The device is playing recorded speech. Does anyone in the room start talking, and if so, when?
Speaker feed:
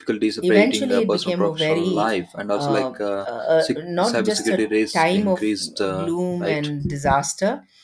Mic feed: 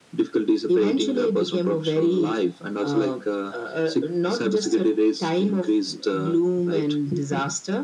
none

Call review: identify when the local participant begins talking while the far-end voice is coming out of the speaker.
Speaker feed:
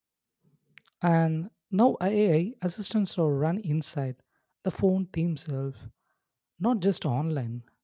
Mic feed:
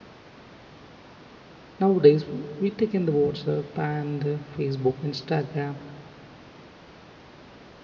1.8 s

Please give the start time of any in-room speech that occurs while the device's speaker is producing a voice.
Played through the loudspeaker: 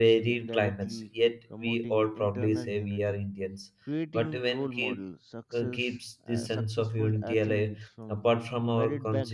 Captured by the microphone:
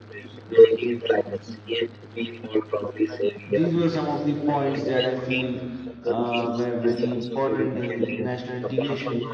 3.5 s

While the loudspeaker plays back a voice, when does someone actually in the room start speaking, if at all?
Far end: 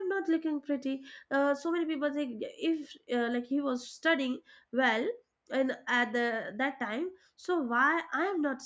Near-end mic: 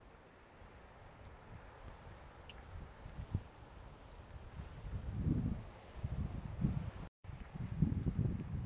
none

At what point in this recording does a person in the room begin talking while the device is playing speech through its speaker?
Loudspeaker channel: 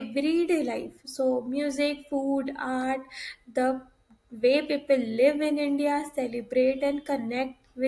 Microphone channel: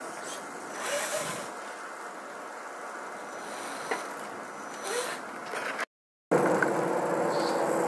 none

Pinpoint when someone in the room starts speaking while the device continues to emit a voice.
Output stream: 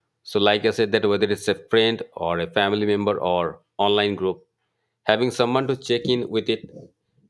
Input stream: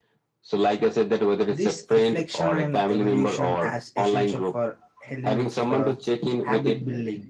1.4 s

